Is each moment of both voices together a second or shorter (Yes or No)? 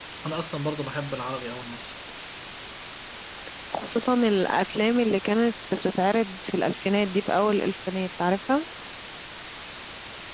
Yes